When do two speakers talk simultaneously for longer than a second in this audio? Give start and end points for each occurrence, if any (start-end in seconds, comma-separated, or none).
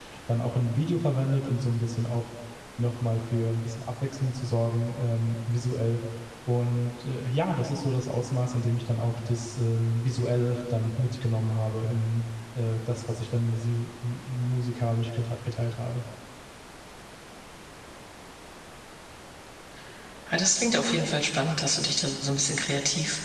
none